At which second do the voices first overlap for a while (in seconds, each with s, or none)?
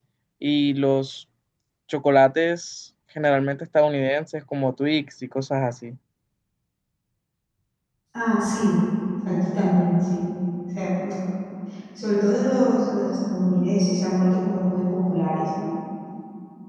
none